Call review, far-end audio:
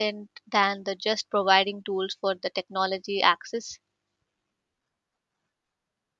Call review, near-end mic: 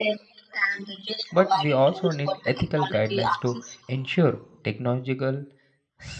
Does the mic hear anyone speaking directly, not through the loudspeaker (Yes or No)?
Yes